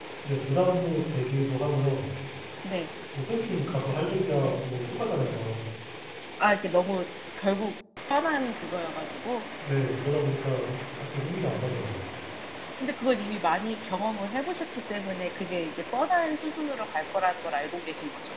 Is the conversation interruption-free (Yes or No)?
Yes